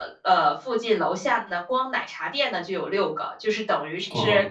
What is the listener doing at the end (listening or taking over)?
listening